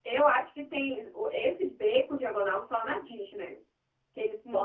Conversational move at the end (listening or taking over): taking over